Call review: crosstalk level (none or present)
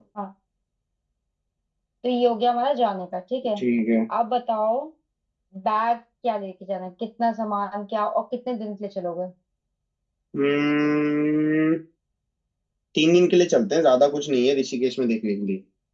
none